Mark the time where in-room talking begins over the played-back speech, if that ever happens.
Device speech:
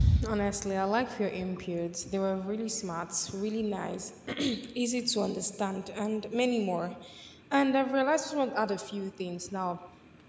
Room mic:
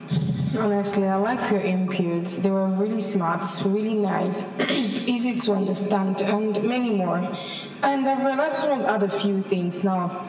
none

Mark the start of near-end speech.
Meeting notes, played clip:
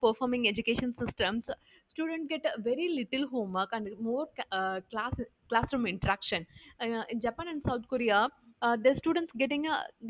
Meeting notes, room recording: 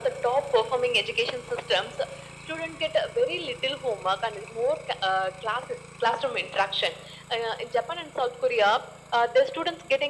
none

